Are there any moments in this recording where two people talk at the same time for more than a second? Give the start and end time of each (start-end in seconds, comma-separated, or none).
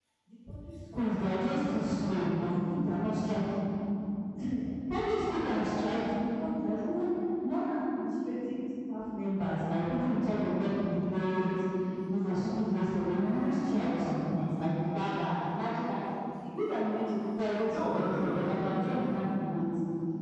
17.7-19.0